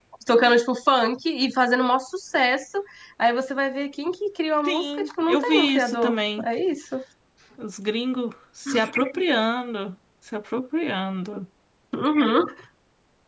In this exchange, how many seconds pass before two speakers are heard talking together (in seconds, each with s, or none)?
4.6 s